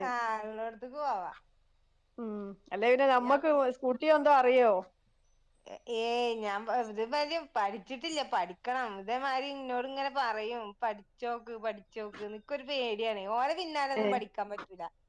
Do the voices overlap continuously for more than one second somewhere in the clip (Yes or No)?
No